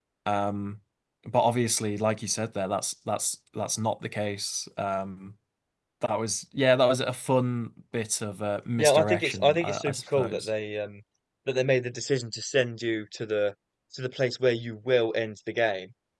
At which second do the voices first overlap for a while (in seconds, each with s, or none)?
8.8 s